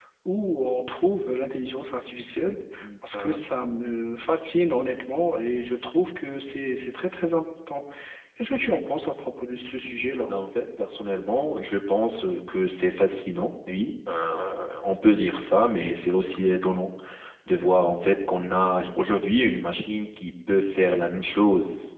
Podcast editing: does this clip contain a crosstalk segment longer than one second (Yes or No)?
No